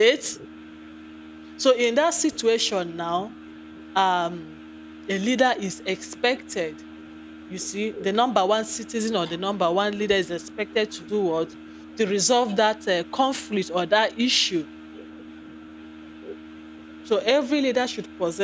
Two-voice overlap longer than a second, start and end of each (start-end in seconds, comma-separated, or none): none